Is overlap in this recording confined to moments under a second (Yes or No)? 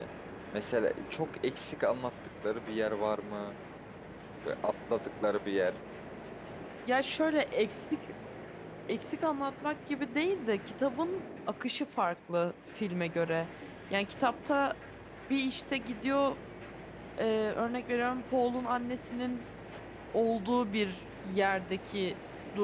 Yes